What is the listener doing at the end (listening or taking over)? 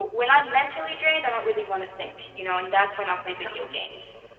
listening